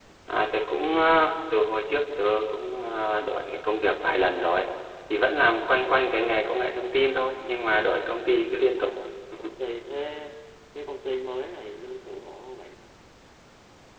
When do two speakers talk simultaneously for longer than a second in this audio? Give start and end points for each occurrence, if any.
none

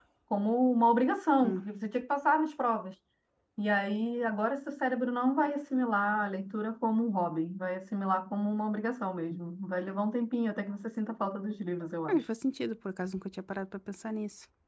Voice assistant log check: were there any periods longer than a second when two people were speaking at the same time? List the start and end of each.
none

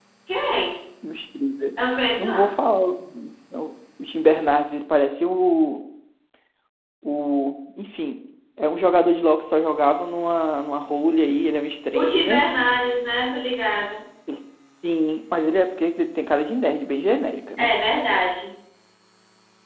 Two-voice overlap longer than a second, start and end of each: none

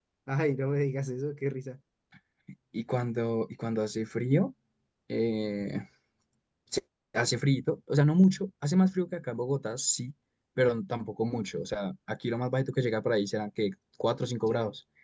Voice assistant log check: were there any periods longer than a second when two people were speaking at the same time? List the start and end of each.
none

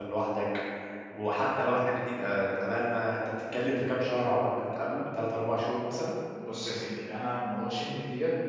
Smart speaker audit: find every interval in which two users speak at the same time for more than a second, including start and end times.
none

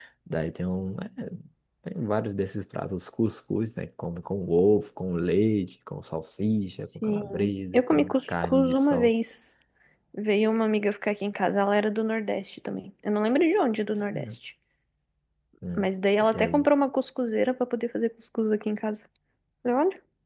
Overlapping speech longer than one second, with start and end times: 7.0-9.1

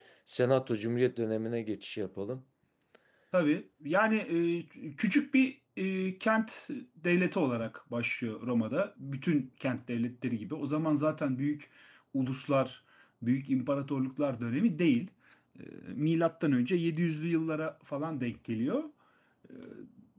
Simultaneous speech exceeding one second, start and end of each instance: none

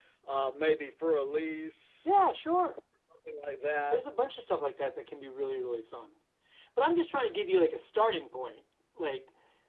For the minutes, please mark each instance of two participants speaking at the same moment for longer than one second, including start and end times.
none

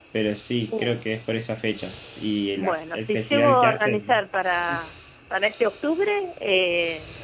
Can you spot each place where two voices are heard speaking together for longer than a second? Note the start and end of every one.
2.6-4.2

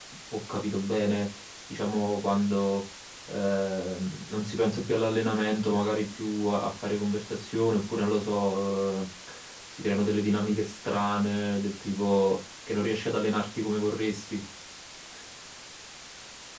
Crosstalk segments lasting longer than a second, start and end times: none

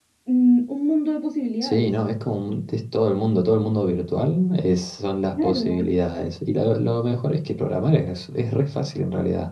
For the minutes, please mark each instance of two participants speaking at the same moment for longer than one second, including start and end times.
none

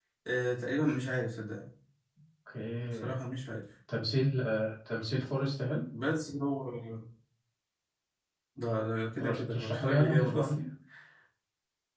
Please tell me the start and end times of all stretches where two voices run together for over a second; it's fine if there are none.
9.2-10.5

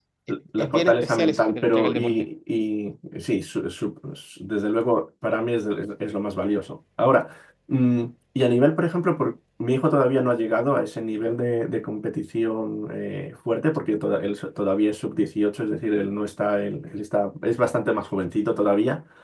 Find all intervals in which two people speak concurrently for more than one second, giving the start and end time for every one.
0.6-2.1

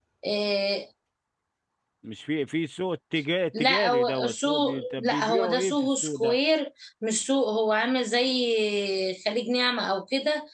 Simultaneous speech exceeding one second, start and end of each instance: 3.6-6.4

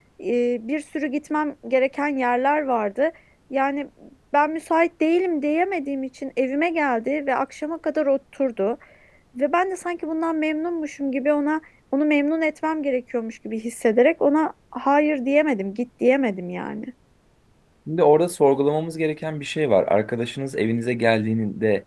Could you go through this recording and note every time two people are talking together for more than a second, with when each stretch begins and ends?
none

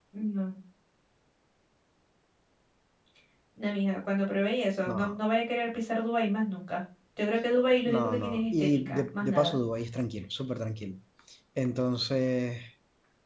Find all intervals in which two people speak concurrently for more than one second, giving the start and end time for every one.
7.8-9.6

